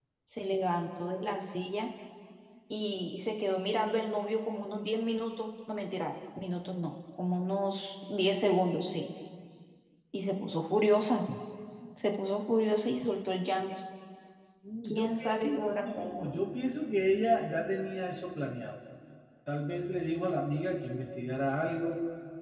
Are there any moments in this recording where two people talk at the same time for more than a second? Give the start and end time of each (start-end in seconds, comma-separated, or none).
14.8-16.4